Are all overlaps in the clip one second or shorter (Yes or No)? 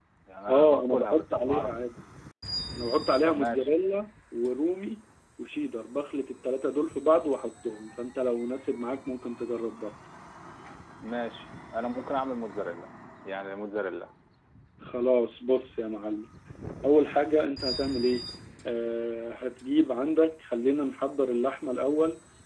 No